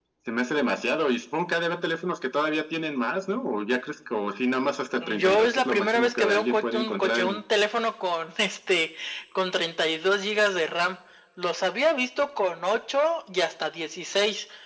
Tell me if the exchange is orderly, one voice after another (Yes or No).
No